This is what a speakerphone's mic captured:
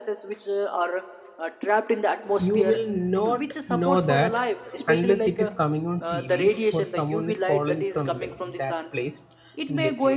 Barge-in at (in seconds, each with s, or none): 2.4 s